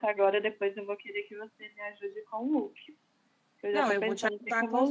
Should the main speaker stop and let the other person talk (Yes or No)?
Yes